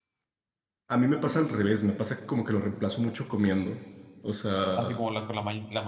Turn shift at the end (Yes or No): Yes